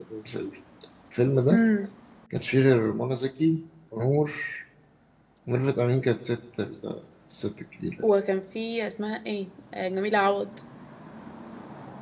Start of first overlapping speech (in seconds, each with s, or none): none